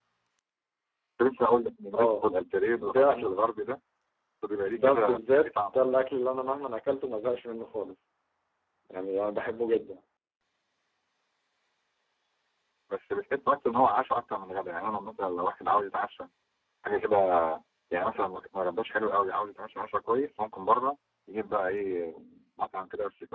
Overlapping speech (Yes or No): Yes